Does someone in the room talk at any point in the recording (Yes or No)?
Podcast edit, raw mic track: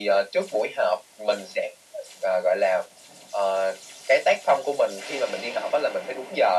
No